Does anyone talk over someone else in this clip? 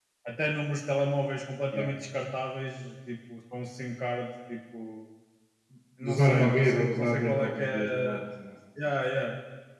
Yes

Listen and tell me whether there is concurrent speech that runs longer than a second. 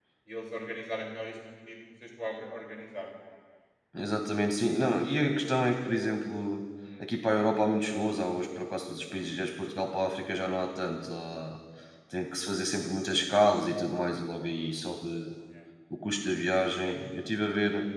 No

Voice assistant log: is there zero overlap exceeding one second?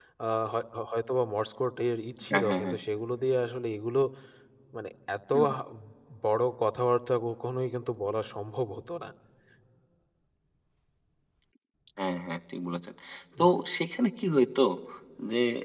Yes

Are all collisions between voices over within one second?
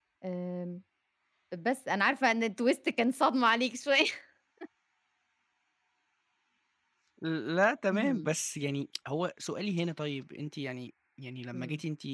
Yes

